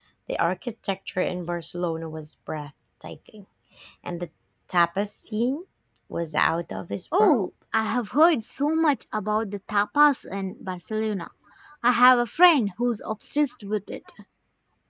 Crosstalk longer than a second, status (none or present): none